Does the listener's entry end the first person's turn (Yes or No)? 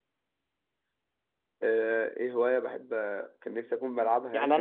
Yes